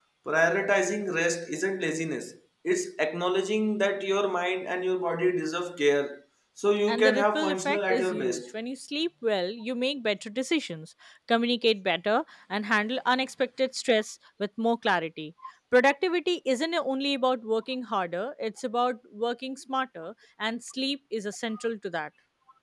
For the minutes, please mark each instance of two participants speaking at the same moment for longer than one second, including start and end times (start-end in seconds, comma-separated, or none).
6.9-8.4